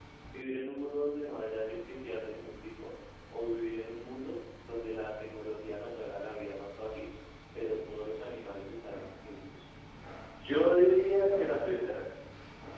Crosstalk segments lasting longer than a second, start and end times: none

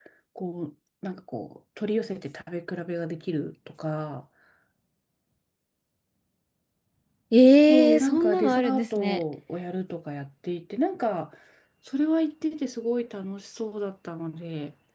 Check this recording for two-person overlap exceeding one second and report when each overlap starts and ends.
7.7-9.2

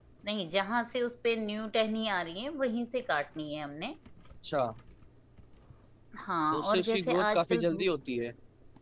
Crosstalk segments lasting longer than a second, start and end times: 6.5-7.9

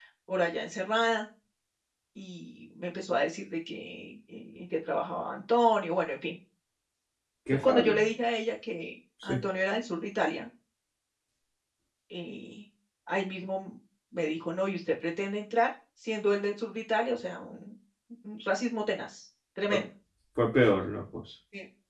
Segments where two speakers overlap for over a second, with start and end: none

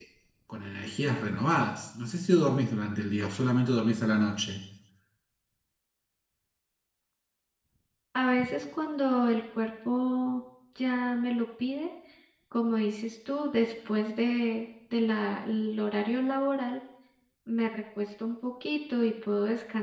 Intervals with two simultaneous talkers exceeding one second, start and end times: none

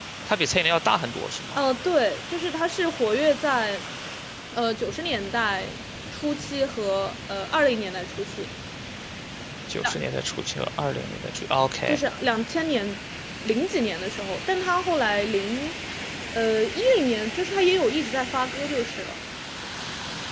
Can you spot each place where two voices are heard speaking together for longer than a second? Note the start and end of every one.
none

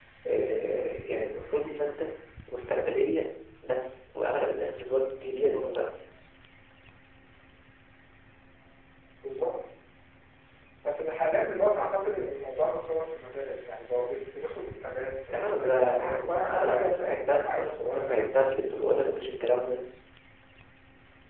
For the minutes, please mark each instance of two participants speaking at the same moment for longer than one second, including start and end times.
15.3-18.3

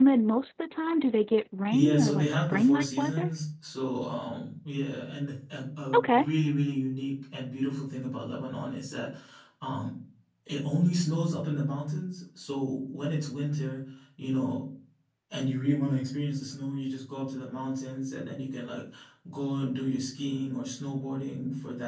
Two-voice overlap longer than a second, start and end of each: 1.7-3.3

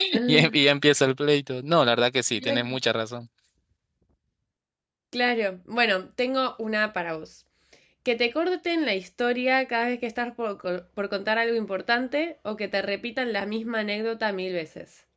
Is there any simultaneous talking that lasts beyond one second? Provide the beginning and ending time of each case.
none

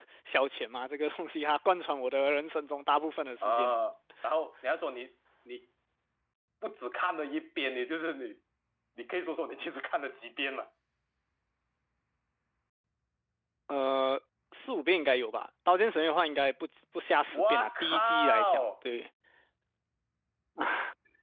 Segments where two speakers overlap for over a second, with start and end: 17.3-18.6

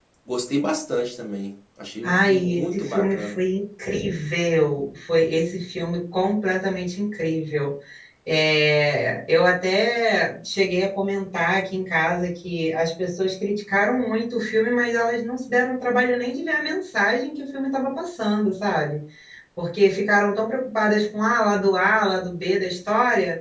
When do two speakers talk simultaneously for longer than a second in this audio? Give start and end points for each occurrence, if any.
2.0-3.4

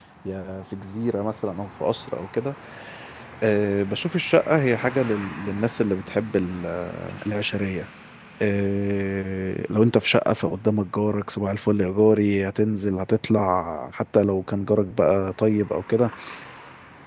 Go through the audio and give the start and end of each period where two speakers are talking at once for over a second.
none

